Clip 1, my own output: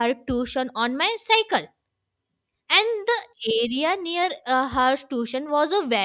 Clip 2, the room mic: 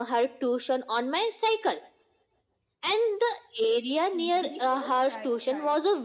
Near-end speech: present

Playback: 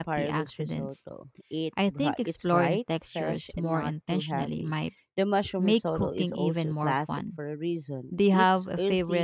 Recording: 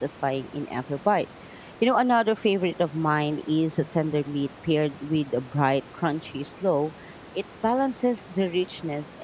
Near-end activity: present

